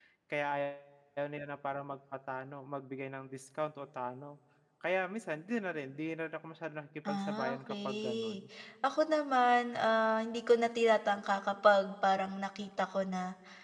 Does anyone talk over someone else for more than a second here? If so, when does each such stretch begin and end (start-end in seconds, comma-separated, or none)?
7.1-8.4